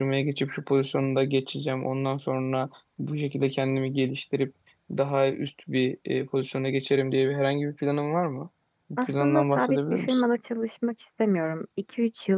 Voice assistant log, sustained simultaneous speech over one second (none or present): present